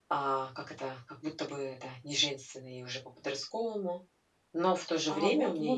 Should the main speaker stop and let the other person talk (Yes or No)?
Yes